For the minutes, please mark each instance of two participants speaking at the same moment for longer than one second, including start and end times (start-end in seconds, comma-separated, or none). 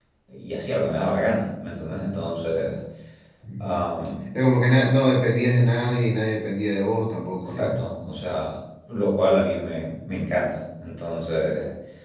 none